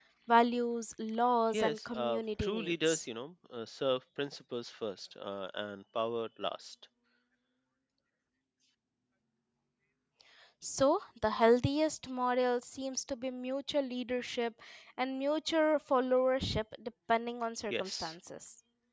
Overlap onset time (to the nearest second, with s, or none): 2 s